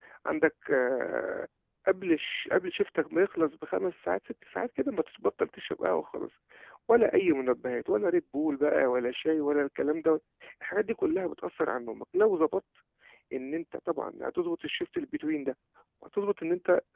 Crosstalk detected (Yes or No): No